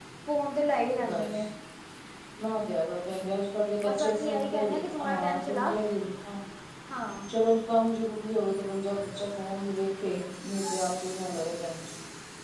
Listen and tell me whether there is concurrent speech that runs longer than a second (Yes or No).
Yes